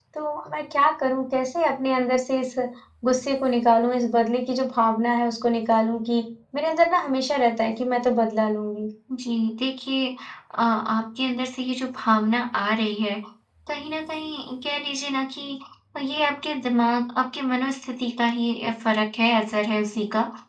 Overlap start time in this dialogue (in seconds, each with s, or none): none